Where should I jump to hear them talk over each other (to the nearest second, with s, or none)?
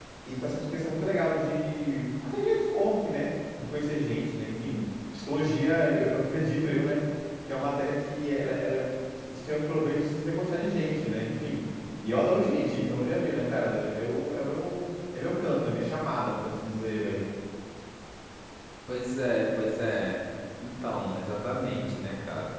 none